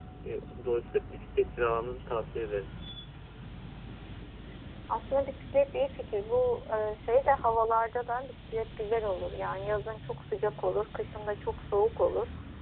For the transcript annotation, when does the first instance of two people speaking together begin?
none

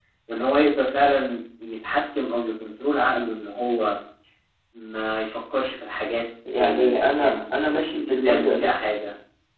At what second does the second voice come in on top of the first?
6.5 s

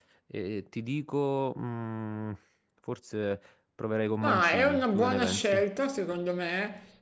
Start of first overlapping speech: 4.2 s

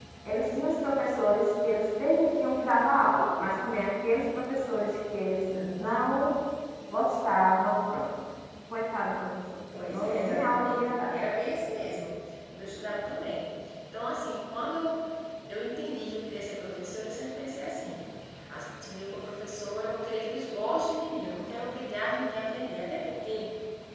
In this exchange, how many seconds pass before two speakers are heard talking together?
9.7 s

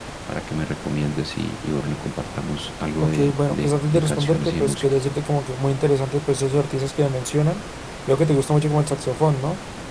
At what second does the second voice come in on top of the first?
3.0 s

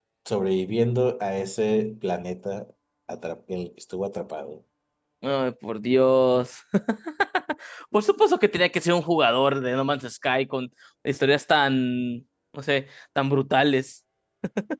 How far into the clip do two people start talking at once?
none

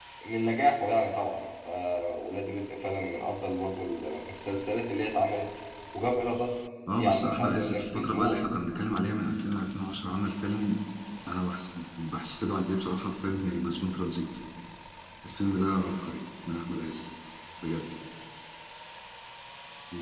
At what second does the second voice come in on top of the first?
6.9 s

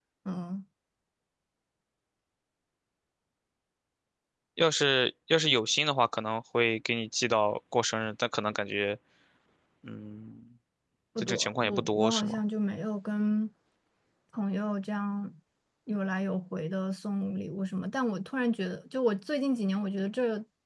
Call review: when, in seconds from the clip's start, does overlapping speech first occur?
11.2 s

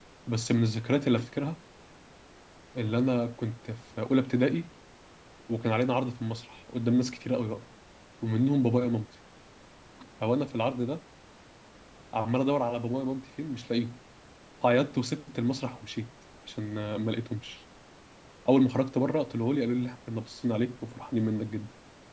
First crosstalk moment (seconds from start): none

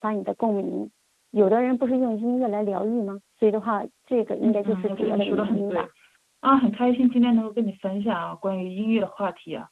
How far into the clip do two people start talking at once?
4.4 s

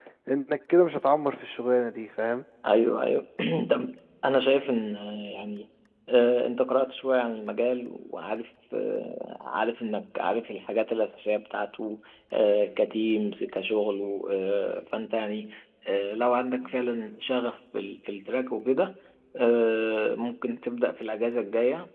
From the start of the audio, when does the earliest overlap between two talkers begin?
none

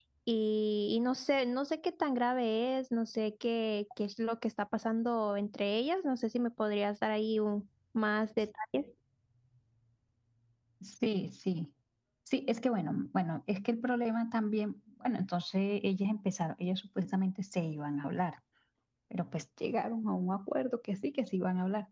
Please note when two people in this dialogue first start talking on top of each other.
none

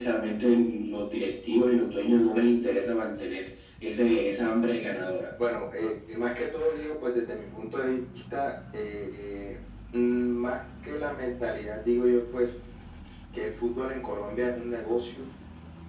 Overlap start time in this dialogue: none

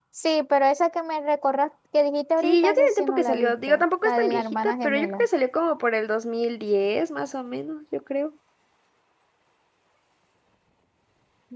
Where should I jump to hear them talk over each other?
2.4 s

